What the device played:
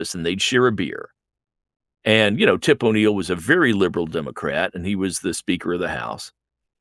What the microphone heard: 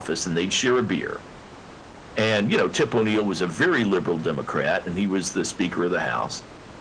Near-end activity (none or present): none